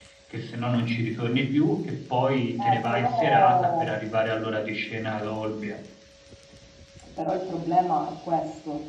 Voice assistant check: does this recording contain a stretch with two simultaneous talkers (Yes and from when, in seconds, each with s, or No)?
Yes, from 2.6 s